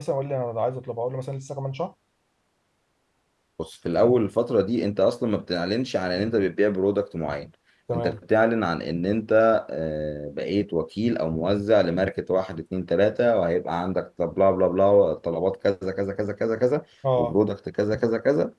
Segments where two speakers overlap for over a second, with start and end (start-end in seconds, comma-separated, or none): none